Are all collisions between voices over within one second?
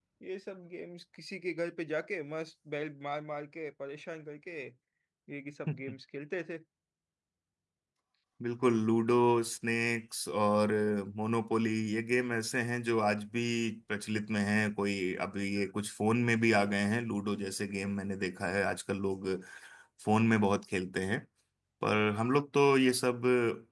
Yes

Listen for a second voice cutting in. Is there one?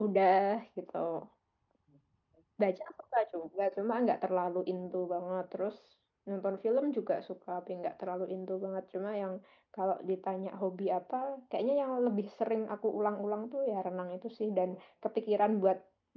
No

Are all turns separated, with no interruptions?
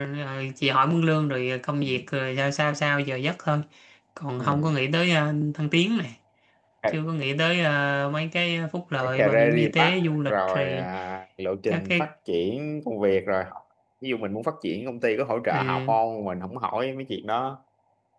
No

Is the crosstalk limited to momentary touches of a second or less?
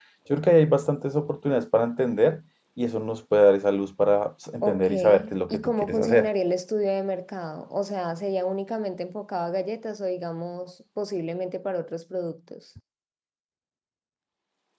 No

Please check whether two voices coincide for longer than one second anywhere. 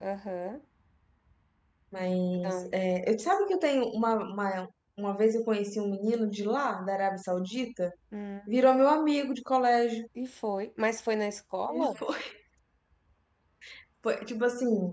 No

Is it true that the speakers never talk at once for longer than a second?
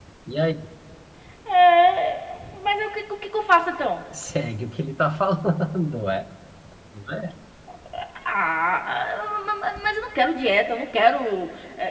Yes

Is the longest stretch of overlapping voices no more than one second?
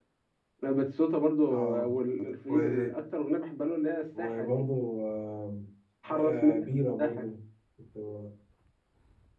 No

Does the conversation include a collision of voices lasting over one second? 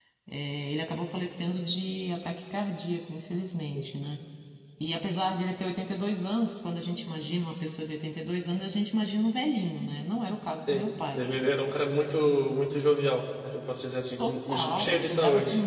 Yes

